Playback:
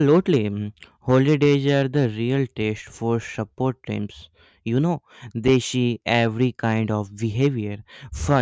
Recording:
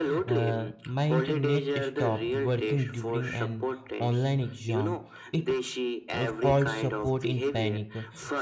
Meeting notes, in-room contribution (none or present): present